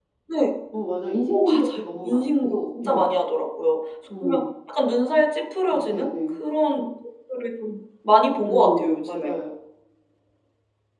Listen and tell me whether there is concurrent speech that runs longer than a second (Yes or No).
Yes